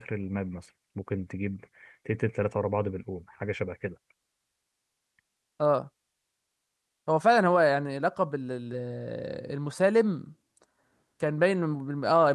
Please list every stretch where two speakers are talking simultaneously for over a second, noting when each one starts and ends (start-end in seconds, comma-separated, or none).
none